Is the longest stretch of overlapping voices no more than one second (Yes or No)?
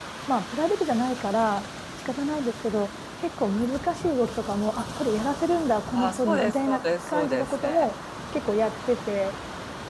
No